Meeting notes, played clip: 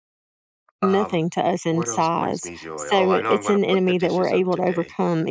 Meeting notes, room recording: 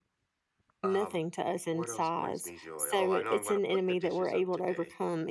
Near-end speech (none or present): none